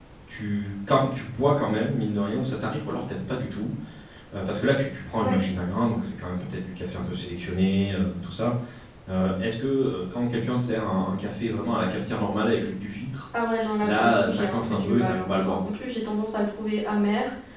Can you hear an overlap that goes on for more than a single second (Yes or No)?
Yes